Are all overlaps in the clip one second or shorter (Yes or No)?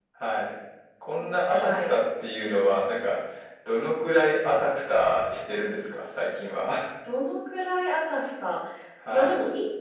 Yes